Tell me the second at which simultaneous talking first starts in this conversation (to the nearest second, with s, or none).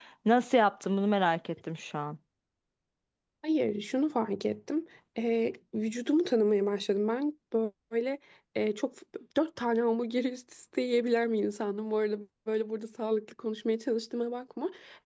none